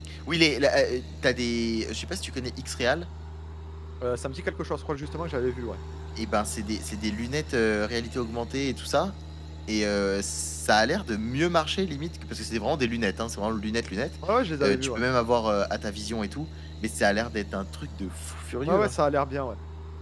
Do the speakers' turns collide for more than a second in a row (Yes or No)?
No